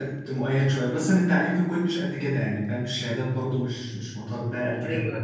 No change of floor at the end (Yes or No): No